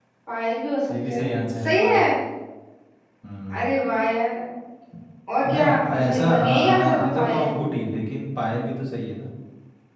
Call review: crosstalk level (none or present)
present